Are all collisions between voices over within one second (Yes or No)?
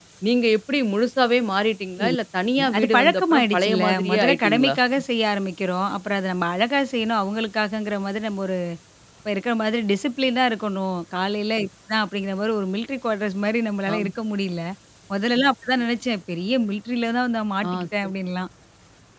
No